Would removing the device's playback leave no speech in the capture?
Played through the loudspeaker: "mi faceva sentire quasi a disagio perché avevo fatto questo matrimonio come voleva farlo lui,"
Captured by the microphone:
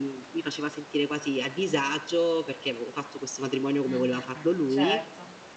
No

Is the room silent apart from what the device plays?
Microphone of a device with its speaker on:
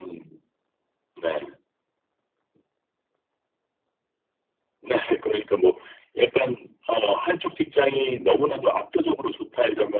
Yes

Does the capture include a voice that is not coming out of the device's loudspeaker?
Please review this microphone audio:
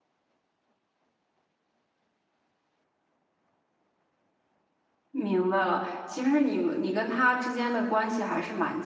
Yes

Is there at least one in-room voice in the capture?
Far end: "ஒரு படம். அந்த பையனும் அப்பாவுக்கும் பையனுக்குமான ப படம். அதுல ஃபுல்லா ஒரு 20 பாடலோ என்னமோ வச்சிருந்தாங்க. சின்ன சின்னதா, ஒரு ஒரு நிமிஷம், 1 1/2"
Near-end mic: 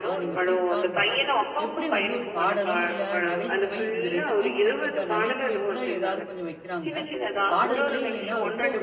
Yes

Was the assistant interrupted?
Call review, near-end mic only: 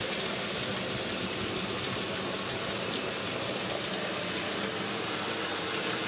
No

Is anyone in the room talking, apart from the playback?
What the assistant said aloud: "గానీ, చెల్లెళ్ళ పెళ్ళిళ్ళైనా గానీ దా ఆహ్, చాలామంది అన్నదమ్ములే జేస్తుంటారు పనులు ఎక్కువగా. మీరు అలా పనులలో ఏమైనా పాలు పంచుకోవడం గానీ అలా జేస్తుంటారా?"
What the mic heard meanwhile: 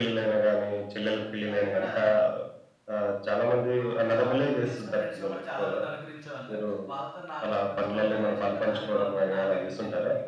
Yes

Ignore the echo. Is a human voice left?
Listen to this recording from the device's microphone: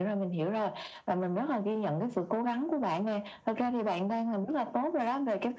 No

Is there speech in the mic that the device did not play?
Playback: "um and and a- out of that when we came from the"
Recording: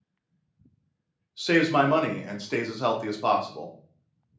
Yes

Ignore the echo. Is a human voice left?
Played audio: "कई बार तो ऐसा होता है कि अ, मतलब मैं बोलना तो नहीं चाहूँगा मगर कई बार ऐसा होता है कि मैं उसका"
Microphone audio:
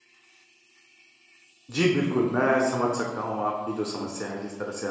Yes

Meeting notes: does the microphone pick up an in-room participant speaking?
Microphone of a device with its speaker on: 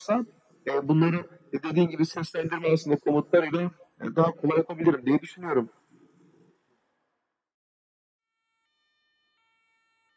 No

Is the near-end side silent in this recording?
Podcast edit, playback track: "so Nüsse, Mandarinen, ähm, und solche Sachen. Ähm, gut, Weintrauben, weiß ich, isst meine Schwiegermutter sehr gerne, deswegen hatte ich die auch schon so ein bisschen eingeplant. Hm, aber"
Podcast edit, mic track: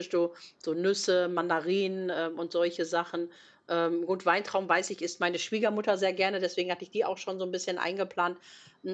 Yes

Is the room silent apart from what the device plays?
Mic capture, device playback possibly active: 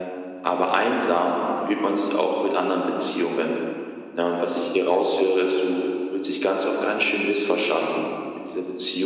Yes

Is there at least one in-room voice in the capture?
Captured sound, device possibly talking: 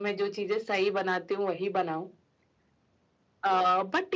No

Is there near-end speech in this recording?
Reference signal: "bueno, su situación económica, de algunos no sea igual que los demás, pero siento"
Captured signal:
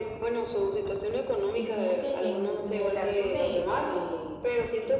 Yes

